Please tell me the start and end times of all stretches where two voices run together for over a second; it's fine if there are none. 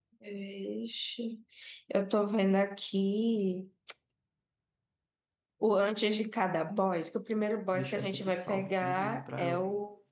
7.7-9.6

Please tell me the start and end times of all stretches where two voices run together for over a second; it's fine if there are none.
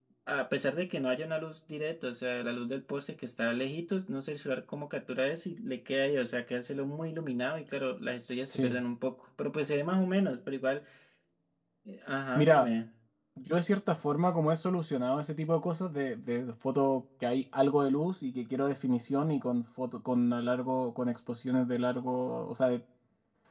none

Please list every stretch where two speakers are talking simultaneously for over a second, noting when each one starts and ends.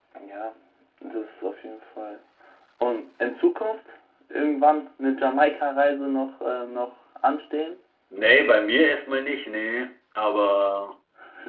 none

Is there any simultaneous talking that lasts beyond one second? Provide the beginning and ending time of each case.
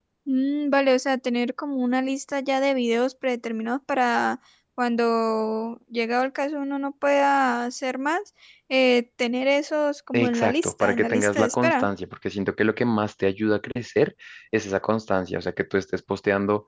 10.1-11.9

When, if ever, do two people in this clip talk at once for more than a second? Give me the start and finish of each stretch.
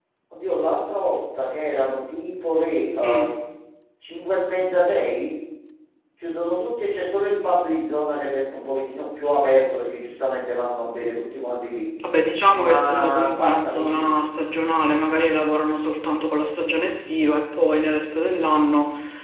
12.5-14.1

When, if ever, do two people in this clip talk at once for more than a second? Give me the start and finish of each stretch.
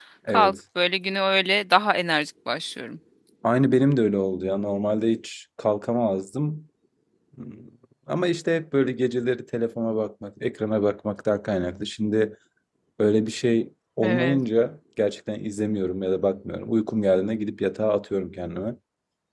none

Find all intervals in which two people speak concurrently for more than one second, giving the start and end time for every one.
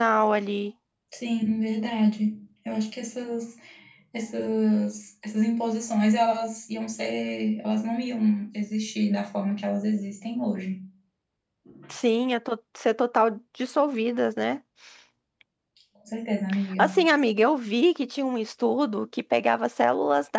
none

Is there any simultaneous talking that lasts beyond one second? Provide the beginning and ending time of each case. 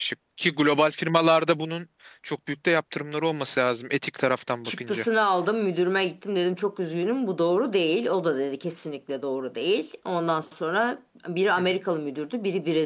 none

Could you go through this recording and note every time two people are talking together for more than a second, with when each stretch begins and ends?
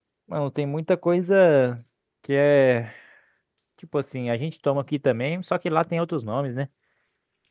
none

